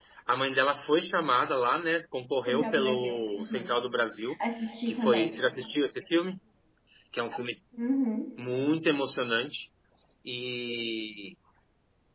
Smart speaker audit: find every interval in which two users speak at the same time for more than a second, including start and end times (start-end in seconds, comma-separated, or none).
2.5-3.8